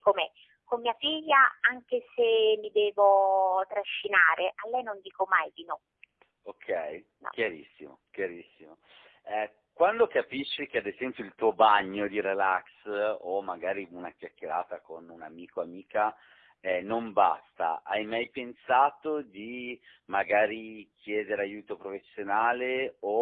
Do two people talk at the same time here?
No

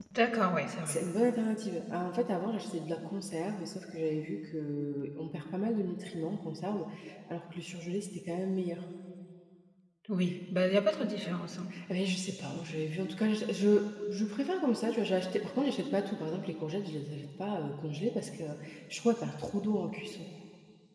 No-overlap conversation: Yes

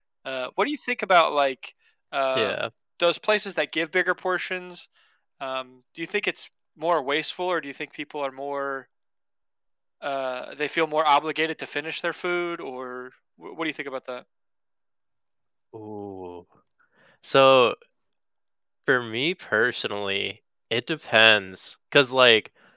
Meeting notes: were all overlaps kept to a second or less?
Yes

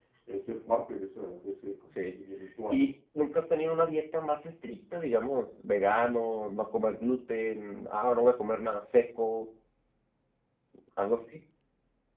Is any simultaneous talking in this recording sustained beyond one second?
No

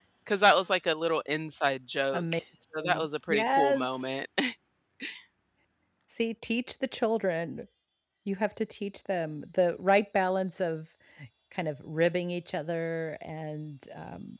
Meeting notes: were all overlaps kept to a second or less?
No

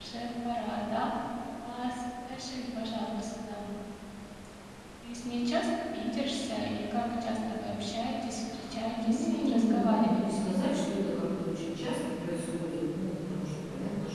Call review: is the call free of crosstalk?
No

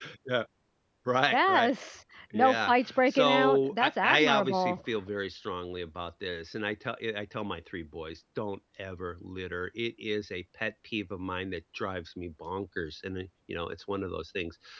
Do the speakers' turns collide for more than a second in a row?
Yes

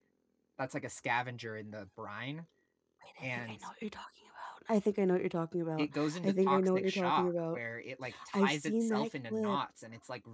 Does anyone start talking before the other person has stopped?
Yes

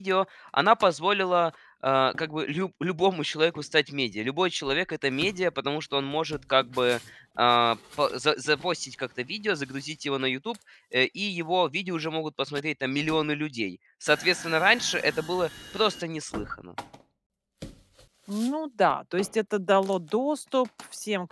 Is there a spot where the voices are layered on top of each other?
No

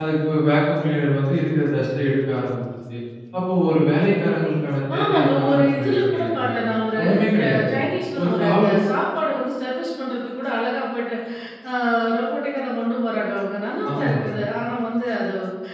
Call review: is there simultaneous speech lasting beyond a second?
Yes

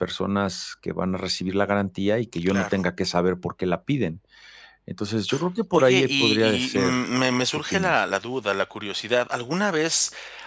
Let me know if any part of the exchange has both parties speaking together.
Yes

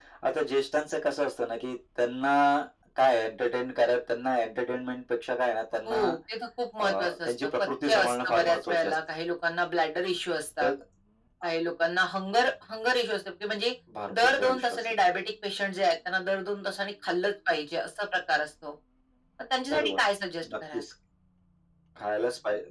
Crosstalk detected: Yes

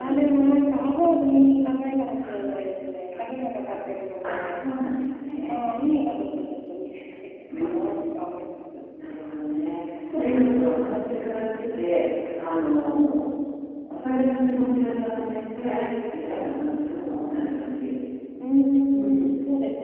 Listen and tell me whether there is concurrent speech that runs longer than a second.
No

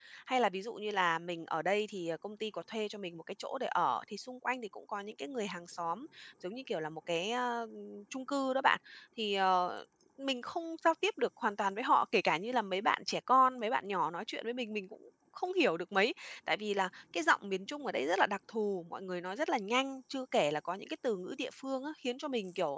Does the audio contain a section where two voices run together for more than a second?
No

